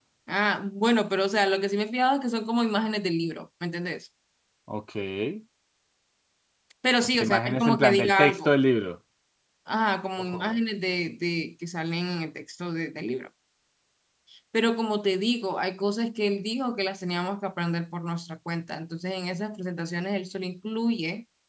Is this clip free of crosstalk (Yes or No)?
No